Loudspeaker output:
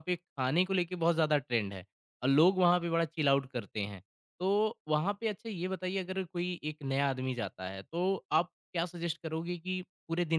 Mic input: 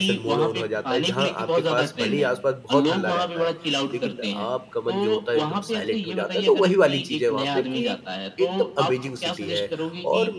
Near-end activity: present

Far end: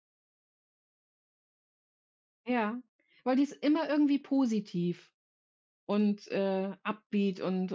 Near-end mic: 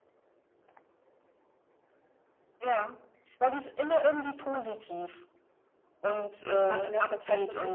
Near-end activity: present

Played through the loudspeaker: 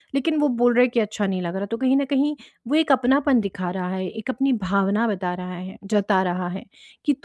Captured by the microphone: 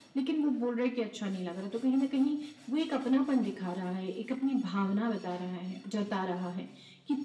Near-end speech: none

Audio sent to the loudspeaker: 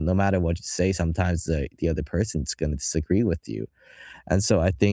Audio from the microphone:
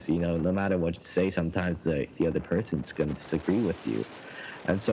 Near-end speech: none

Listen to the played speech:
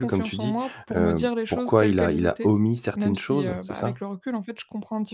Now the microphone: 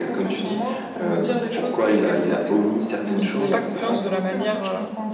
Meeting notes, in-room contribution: present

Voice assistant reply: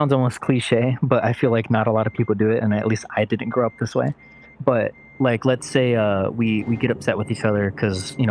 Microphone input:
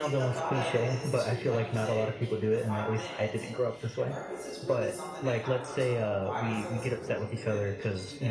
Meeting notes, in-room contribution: present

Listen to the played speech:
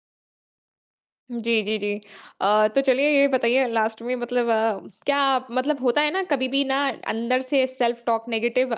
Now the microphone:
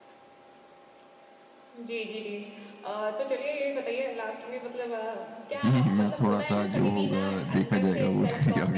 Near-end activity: present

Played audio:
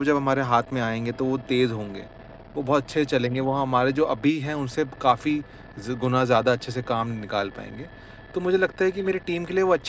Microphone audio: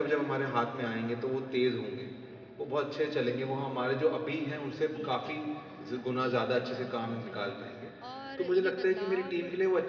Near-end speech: present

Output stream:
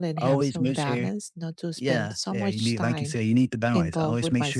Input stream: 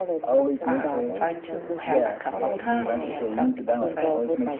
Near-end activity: present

